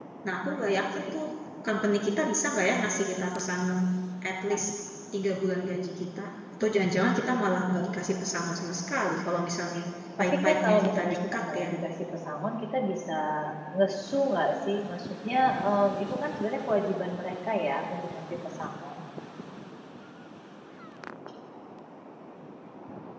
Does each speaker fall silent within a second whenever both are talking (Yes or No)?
No